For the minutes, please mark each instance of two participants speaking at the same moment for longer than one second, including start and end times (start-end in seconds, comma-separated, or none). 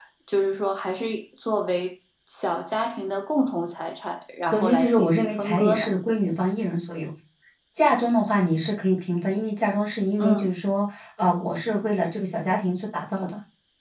4.5-5.9